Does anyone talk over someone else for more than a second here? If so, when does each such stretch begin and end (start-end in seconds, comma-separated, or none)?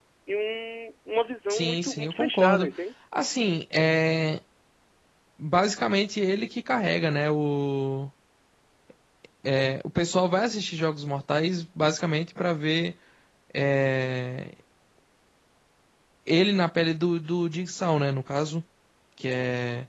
1.5-2.7